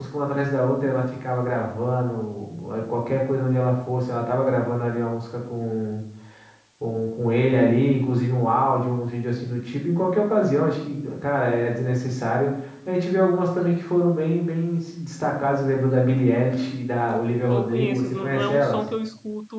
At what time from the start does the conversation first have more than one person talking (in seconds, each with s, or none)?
17.5 s